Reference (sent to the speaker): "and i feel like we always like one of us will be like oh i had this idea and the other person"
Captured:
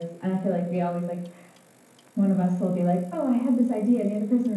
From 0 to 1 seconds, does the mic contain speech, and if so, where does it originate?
echo only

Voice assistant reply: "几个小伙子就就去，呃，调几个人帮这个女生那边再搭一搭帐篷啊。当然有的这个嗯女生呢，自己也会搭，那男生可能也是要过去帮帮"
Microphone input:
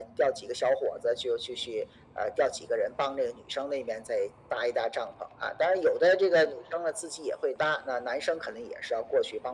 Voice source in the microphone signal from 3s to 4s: echo only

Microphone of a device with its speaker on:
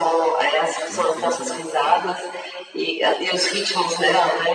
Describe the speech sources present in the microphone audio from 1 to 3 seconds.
both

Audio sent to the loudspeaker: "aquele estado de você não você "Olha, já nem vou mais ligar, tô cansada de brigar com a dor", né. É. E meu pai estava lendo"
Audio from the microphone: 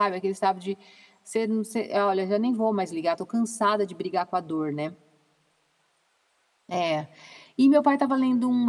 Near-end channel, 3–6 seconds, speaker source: echo only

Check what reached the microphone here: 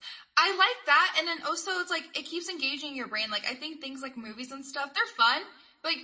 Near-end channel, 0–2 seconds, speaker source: user only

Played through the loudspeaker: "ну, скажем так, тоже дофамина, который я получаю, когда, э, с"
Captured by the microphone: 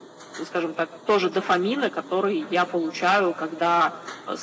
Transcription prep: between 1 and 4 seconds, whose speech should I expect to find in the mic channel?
echo only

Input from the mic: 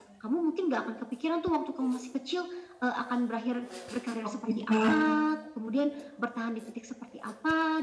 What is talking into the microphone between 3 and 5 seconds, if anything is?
both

